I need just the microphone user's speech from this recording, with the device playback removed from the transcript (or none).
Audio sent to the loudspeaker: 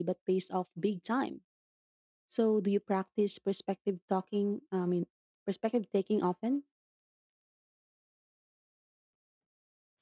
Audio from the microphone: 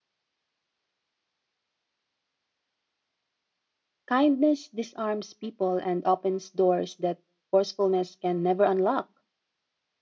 Kindness disarms people and opens doors that forcefulness can never unlock.